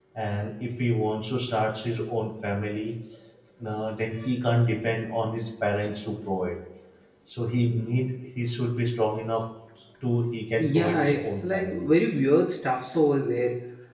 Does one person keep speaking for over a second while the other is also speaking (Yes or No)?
Yes